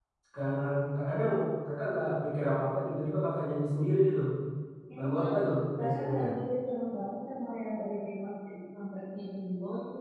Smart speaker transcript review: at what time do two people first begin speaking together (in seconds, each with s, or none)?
5.0 s